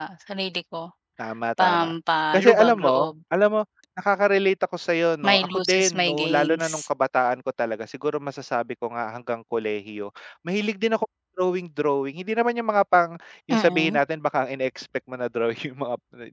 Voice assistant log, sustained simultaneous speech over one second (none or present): present